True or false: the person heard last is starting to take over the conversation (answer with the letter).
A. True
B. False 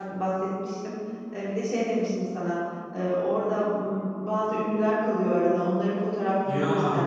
B